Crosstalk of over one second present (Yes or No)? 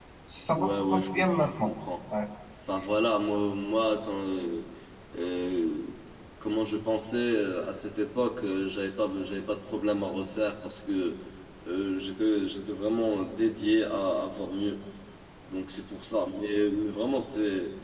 Yes